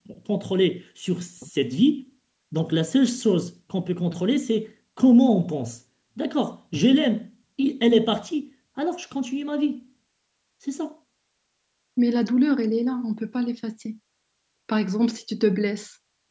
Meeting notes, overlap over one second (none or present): none